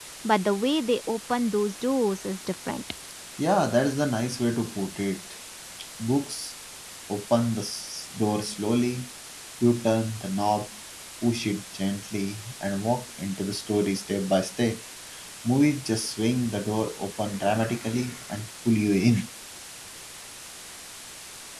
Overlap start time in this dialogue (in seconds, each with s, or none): none